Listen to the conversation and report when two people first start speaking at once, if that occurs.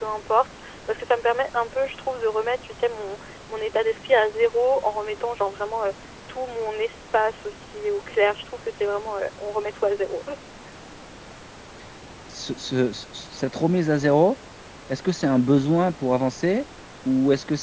none

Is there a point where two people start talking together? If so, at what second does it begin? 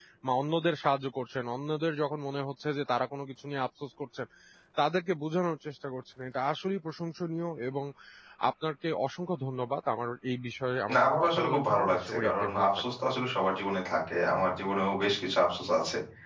11 s

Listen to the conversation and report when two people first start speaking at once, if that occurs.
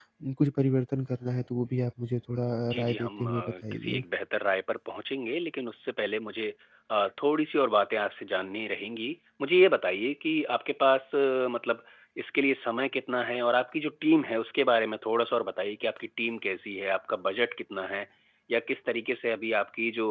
3 s

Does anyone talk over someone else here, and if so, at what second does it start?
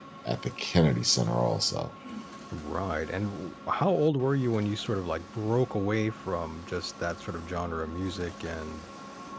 none

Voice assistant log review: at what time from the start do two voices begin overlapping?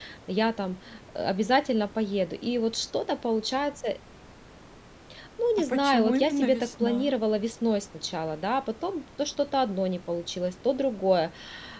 6 s

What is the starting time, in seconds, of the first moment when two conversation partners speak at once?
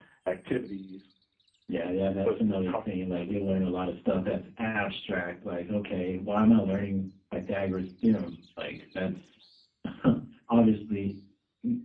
2 s

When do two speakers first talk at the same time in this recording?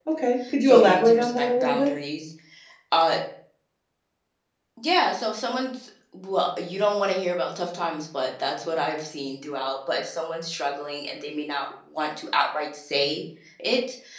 1 s

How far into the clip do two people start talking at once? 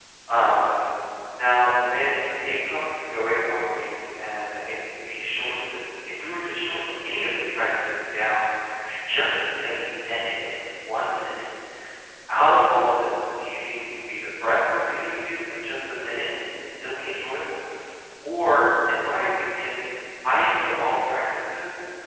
none

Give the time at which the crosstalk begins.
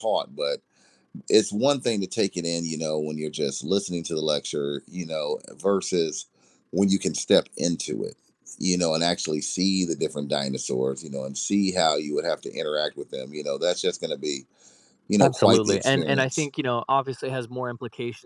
15 s

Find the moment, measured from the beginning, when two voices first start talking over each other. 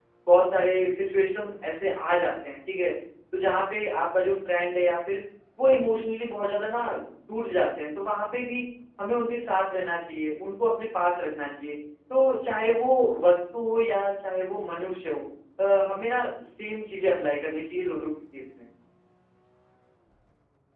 none

